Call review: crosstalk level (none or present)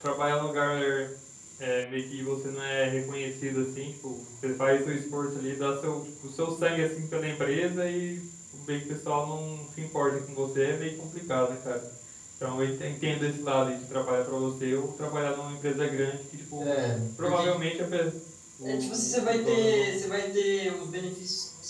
present